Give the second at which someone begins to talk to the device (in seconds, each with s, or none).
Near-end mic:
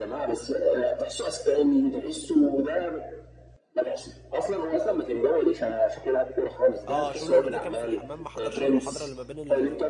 6.9 s